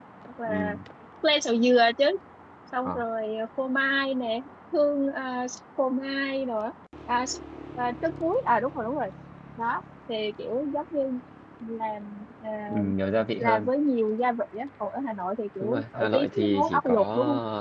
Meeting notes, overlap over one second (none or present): present